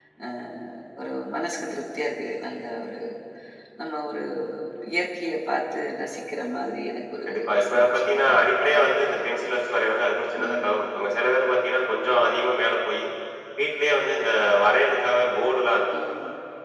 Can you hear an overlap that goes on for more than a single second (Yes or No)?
Yes